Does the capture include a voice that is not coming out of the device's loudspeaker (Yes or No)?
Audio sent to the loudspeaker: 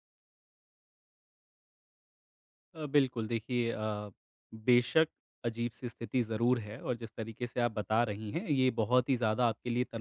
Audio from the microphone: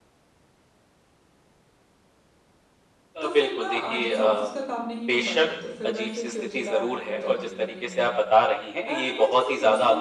Yes